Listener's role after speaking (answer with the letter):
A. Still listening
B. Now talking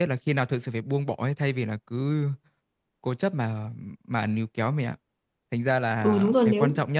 B